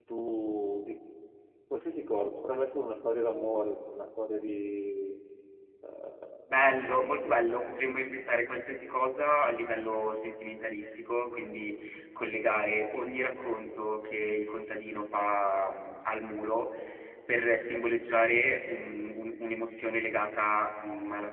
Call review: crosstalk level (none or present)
none